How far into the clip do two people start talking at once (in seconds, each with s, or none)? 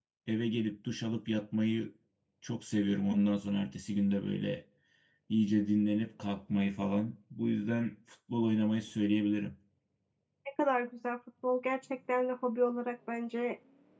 none